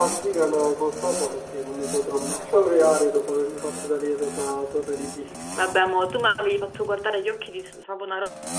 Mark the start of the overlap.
none

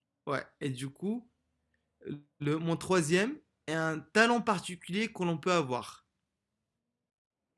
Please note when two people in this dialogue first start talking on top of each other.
none

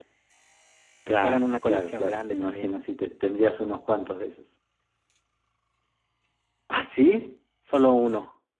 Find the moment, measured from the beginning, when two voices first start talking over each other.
1.2 s

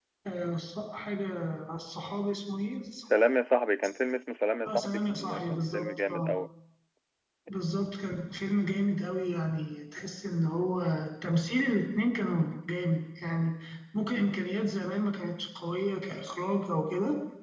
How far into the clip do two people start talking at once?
4.6 s

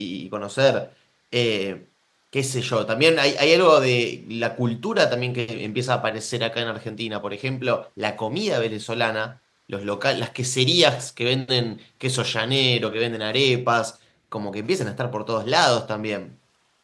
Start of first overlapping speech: none

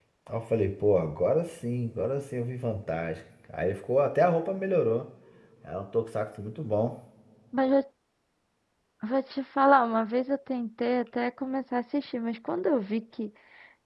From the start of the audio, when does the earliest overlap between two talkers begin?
none

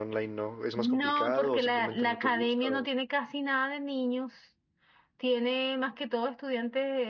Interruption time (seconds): 0.8 s

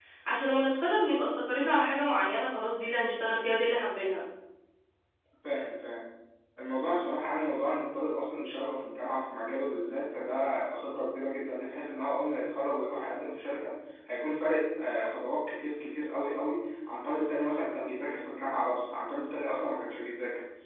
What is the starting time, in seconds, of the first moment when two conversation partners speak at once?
none

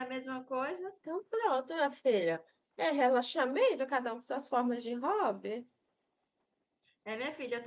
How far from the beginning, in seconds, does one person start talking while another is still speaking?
none

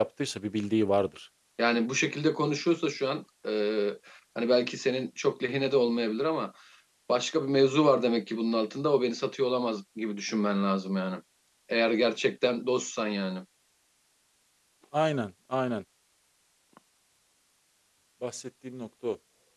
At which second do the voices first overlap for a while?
none

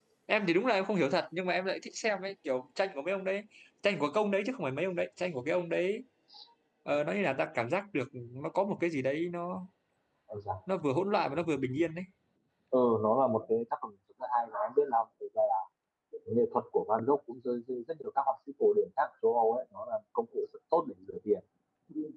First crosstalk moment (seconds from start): none

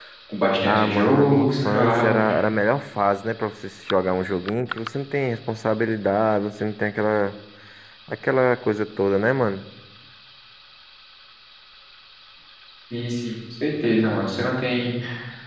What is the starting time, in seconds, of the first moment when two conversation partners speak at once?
0.7 s

